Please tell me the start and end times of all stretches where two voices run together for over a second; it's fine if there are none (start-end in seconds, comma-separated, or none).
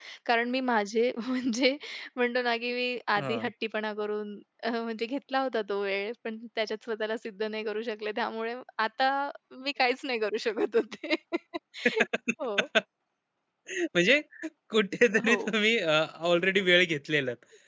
none